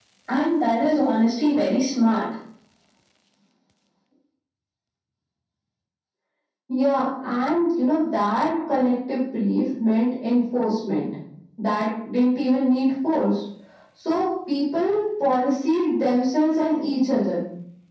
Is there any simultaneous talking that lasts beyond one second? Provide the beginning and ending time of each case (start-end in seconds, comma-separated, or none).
none